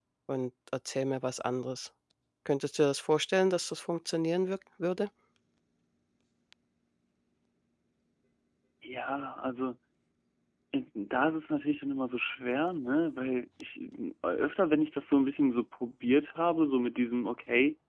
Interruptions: none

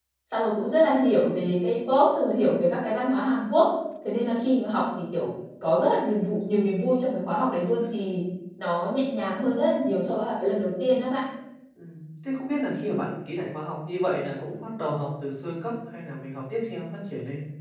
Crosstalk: none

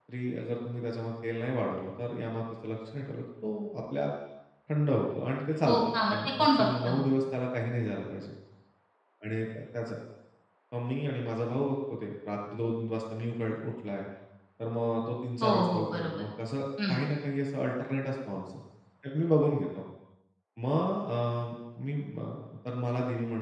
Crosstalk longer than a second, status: present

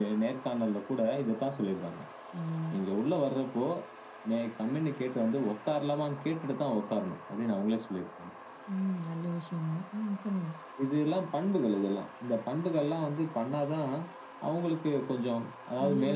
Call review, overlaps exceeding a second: none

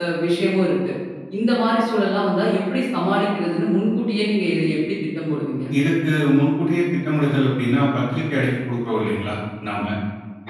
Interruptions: none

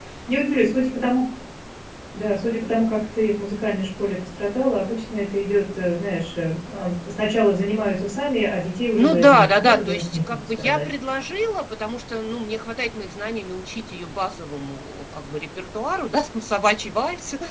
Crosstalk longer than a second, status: present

